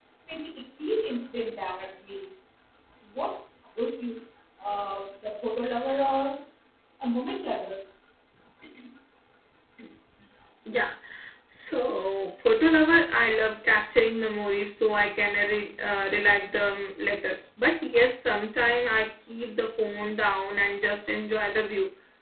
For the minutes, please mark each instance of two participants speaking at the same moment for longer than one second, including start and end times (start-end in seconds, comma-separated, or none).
none